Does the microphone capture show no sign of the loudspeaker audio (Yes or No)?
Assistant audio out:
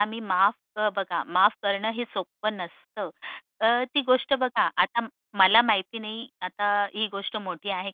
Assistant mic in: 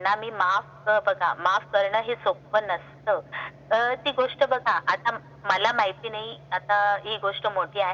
No